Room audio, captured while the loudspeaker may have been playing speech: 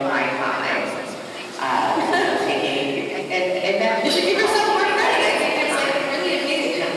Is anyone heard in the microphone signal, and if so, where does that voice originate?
both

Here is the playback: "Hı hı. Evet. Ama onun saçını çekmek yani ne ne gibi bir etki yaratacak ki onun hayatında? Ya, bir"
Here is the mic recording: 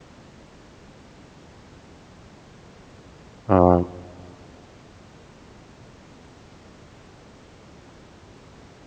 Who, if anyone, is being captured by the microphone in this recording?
user only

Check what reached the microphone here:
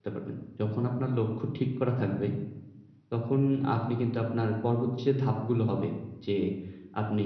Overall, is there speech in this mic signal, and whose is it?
user only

